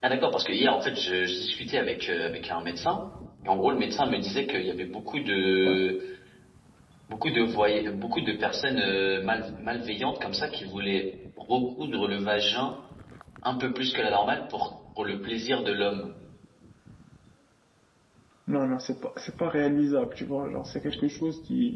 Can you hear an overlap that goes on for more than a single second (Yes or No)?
No